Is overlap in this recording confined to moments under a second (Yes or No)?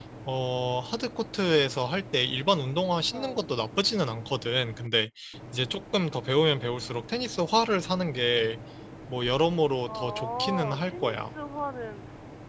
No